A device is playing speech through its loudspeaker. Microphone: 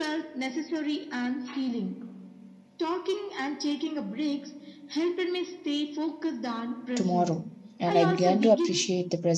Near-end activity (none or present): present